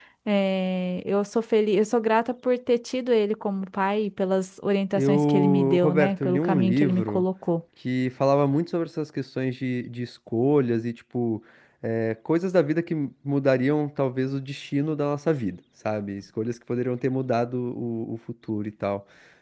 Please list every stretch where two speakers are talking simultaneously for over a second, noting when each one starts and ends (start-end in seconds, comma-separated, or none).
4.9-7.2